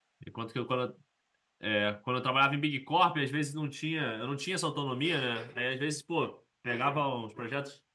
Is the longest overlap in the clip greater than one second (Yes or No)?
No